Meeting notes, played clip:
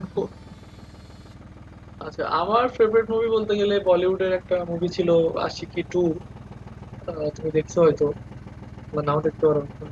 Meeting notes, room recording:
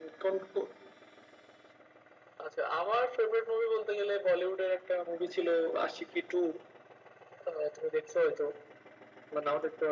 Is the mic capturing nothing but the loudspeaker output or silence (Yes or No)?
Yes